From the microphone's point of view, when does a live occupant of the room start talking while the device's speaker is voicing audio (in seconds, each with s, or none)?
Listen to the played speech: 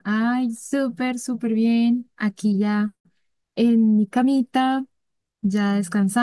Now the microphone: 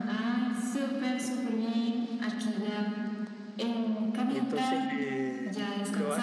4.2 s